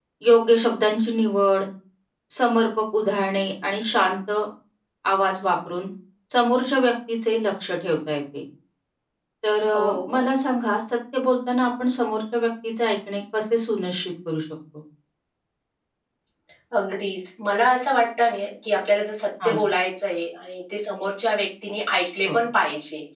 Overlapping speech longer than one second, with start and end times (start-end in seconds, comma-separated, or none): none